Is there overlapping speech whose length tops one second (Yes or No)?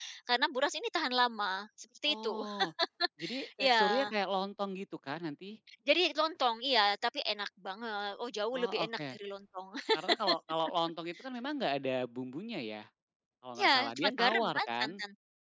Yes